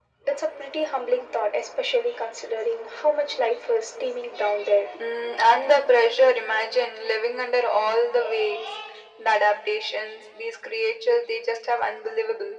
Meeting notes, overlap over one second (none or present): none